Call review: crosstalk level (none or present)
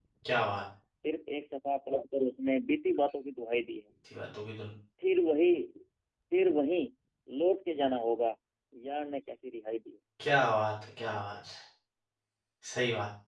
none